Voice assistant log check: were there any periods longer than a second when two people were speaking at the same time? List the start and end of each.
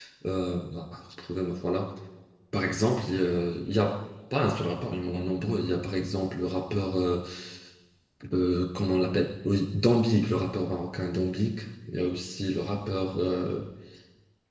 none

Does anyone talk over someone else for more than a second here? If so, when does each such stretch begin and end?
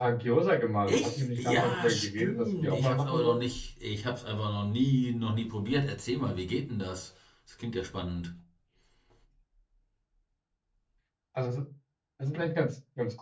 0.9-3.5

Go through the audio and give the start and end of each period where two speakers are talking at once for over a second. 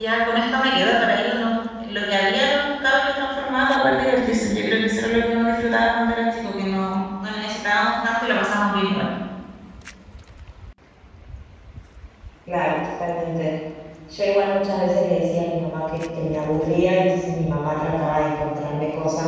none

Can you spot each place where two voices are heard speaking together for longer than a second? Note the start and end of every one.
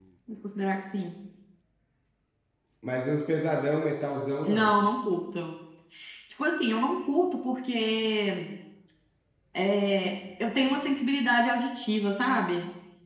none

